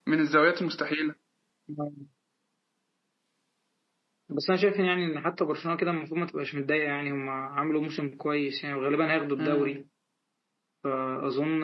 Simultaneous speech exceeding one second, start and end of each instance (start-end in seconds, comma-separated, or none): none